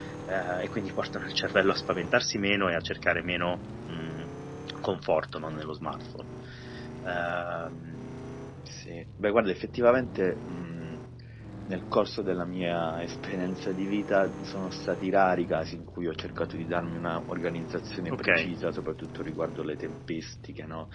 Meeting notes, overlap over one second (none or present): none